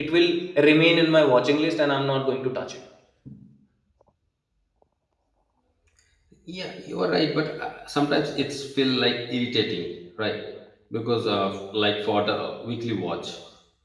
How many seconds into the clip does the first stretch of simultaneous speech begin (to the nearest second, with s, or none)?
none